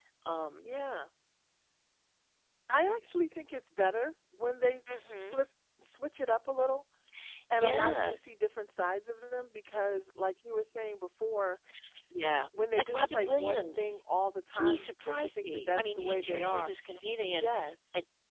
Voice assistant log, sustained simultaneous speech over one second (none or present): present